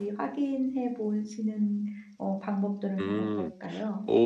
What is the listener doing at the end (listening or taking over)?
taking over